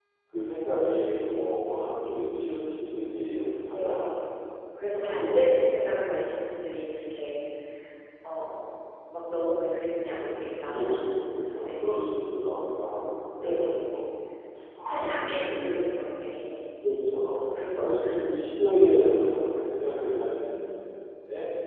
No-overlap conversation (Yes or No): No